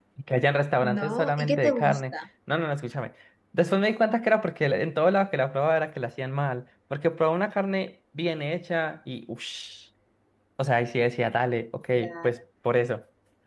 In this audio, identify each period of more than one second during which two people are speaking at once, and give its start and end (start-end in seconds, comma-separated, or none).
0.8-2.0